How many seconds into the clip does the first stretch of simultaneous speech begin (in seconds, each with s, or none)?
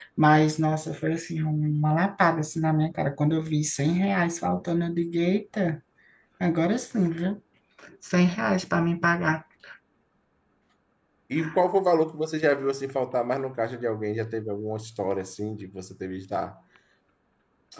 none